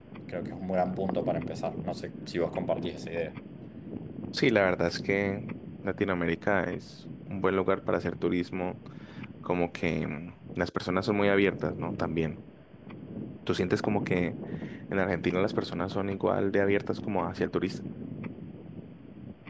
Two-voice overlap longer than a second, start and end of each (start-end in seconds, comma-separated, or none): none